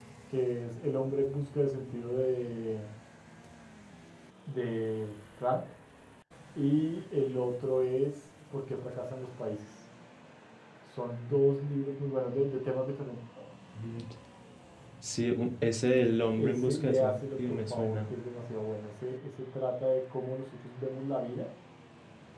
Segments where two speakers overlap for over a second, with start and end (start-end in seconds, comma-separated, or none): 16.4-18.0